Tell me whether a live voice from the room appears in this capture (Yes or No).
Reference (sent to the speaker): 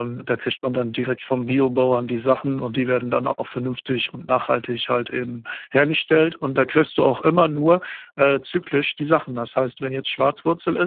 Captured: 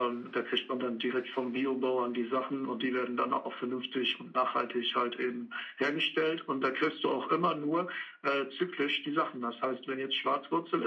No